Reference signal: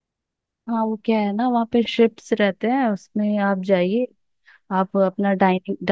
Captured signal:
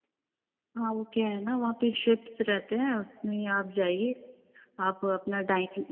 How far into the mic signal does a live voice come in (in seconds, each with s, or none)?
none